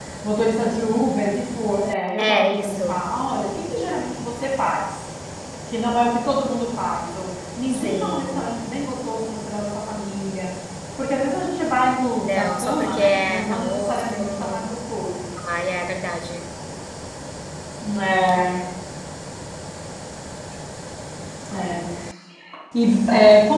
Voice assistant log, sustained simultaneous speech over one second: present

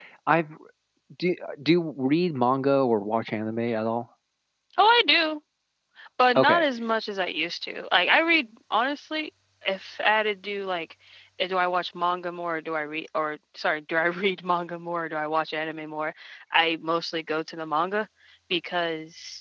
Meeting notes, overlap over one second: none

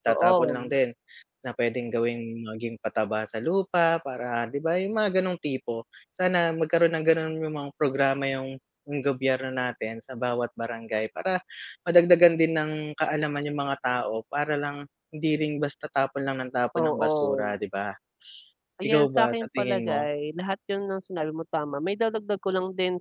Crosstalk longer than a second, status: present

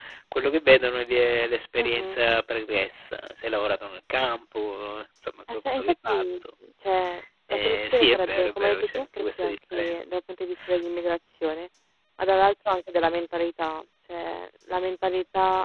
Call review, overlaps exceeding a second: present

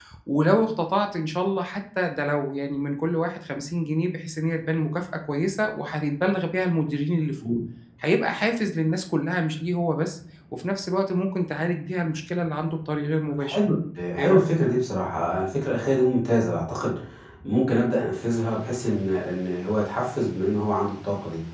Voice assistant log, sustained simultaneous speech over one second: none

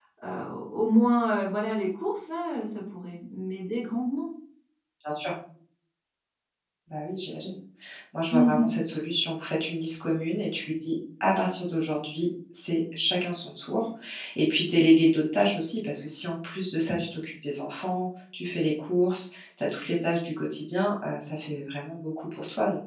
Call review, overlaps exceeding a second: none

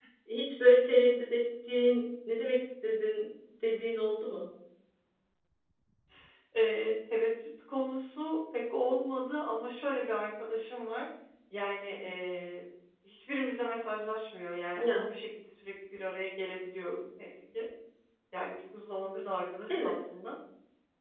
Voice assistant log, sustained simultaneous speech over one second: none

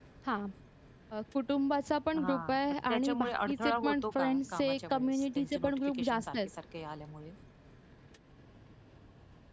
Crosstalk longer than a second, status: present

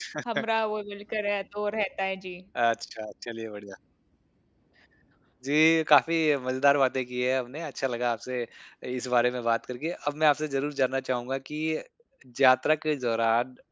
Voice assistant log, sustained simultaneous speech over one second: none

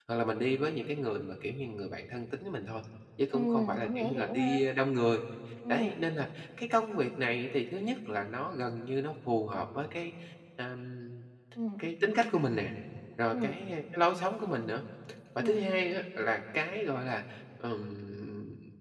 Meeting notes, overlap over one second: present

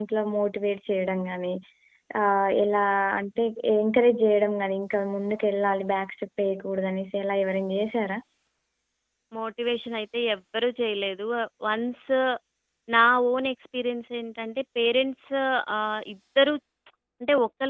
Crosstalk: none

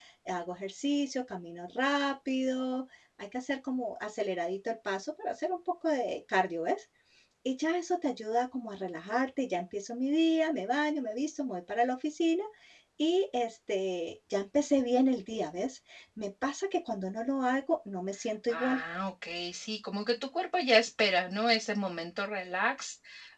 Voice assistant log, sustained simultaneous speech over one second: none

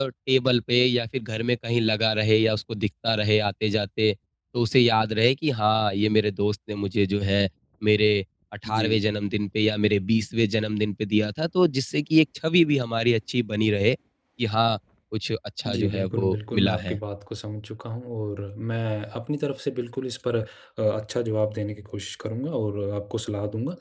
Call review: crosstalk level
present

